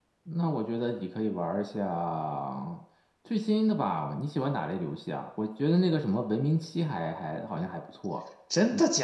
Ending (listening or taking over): taking over